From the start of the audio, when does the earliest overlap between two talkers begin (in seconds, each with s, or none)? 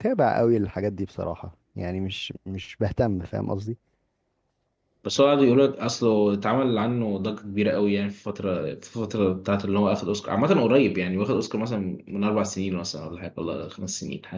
none